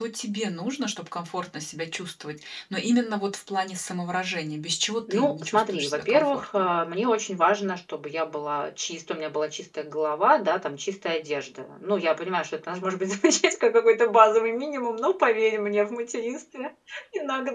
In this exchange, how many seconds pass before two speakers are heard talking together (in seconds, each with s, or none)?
5.1 s